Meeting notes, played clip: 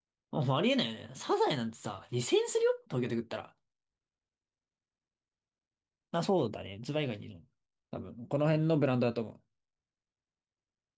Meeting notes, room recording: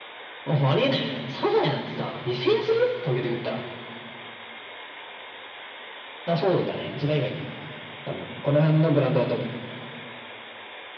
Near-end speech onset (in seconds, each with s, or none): none